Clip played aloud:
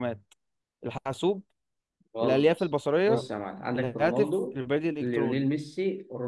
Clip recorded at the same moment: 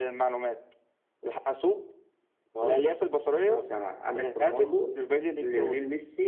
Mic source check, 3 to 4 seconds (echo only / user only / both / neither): echo only